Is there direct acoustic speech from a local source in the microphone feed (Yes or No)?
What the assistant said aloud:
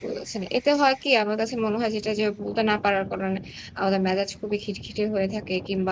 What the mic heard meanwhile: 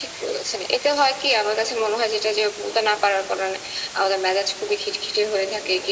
No